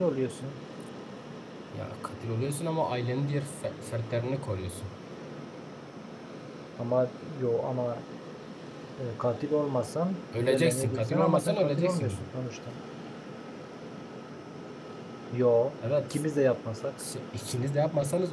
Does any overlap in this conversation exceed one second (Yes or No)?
Yes